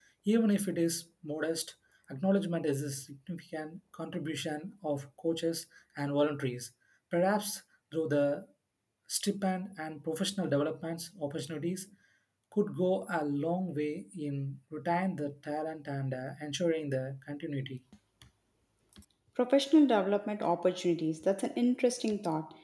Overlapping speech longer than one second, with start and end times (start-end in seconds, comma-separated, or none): none